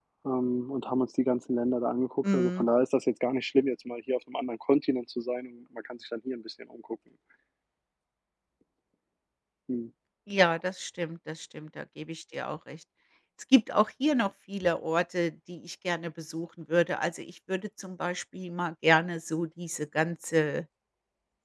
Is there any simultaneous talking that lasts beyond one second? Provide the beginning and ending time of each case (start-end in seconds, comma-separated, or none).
none